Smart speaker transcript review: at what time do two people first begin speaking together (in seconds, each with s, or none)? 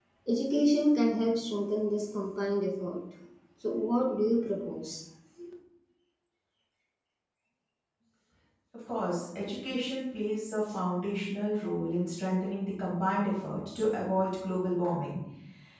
none